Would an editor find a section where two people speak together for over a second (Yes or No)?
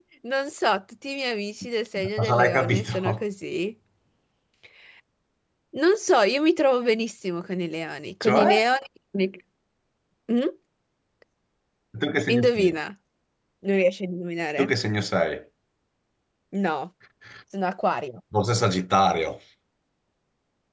Yes